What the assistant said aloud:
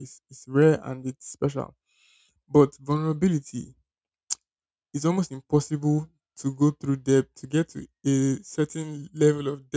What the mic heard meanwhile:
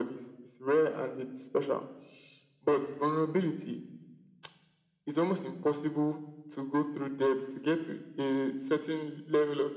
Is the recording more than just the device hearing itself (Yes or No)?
No